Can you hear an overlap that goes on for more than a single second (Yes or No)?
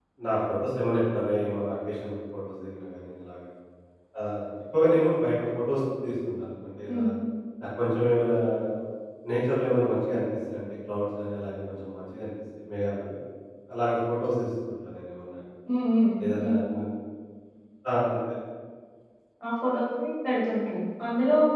No